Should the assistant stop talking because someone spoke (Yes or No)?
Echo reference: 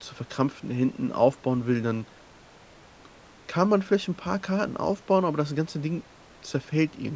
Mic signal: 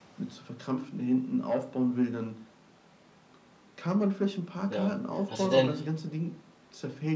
Yes